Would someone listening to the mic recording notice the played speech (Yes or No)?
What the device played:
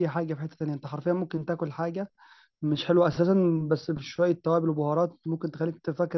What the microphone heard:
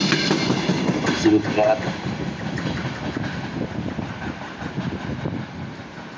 No